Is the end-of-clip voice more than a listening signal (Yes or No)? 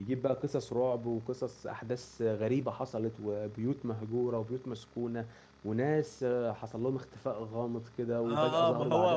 Yes